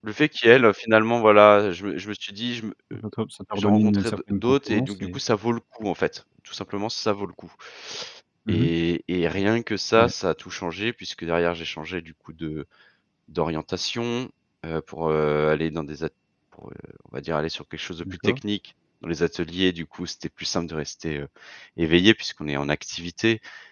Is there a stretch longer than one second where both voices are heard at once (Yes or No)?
Yes